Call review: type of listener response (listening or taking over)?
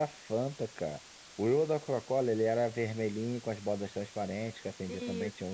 listening